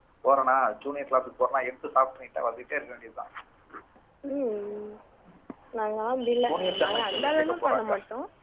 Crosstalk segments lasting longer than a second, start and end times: 6.5-7.9

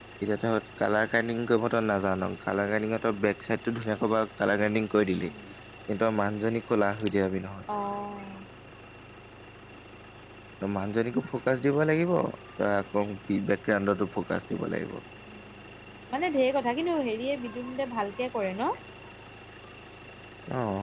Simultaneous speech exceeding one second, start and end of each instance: none

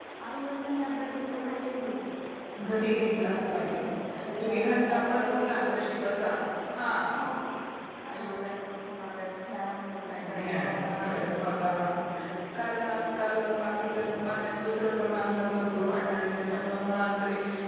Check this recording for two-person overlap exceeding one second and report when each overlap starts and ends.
4.4-5.9

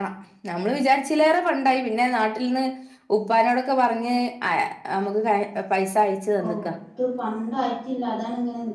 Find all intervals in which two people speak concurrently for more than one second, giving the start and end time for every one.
none

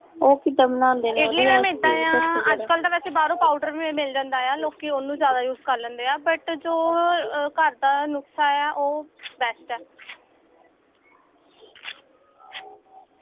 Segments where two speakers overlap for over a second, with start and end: 1.2-2.7

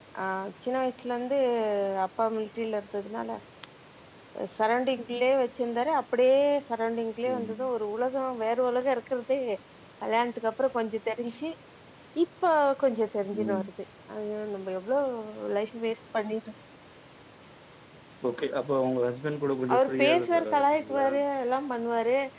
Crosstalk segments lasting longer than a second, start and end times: 19.7-21.1

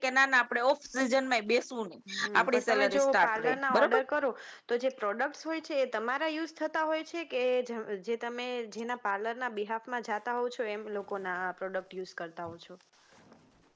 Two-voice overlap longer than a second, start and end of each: 2.4-4.0

